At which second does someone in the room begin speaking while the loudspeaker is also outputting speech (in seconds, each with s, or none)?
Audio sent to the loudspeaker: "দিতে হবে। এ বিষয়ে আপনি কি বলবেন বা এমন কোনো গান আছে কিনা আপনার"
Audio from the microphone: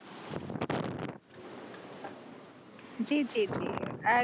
3.1 s